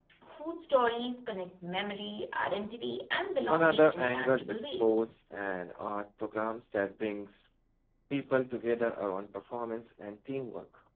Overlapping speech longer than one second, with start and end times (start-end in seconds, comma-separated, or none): 3.5-5.0